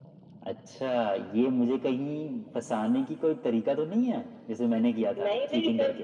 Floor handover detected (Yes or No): Yes